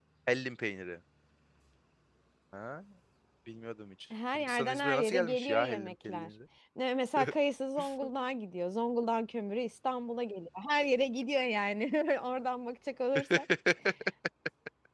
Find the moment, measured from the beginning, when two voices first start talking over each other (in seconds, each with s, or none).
4.3 s